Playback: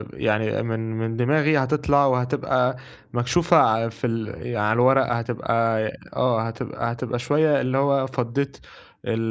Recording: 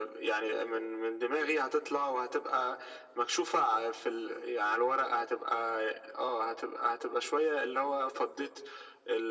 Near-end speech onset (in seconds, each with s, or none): none